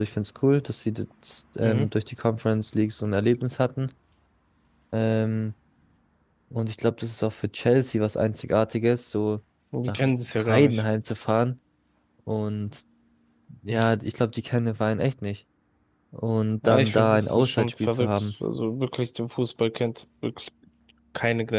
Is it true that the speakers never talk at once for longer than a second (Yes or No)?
No